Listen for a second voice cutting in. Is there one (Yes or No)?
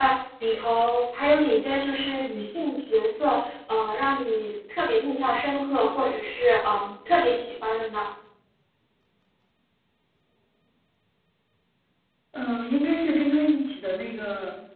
No